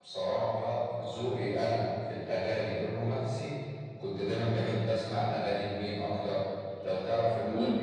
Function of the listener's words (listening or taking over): listening